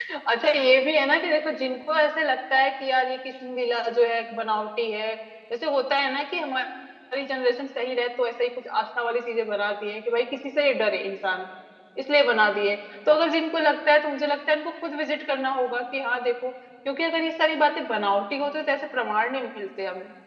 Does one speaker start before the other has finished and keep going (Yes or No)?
No